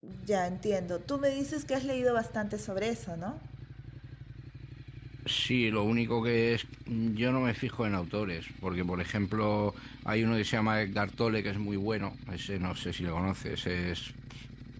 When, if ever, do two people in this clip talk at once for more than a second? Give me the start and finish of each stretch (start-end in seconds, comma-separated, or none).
none